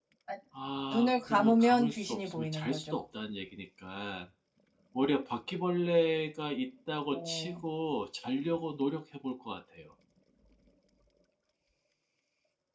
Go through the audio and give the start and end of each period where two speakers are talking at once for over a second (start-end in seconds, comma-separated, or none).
0.9-3.0